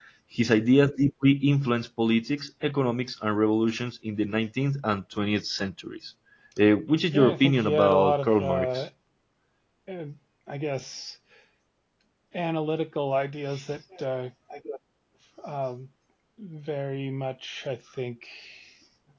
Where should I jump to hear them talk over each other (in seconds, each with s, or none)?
7.1 s